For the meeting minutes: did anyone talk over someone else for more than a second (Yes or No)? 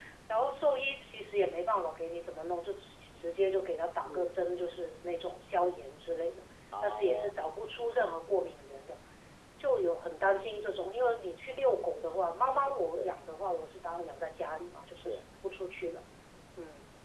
No